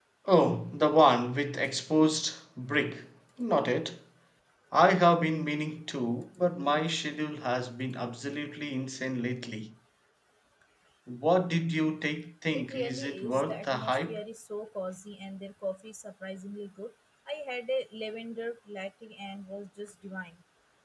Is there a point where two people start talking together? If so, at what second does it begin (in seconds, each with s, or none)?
12.5 s